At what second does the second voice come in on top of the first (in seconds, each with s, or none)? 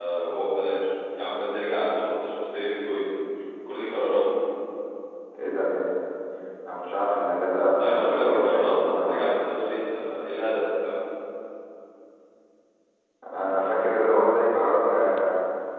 7.8 s